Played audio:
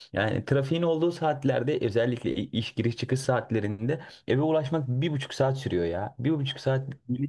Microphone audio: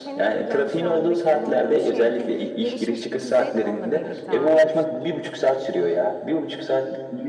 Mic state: both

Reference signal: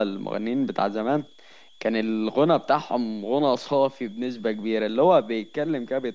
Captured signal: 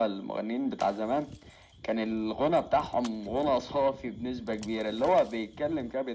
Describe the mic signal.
echo only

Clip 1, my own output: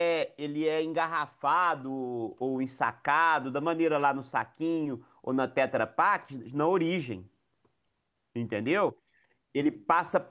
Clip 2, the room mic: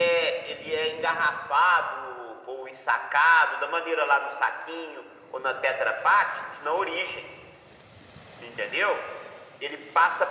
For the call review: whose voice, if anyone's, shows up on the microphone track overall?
echo only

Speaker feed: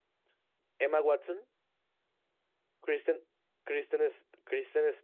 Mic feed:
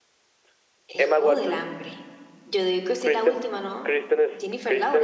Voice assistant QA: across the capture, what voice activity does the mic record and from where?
both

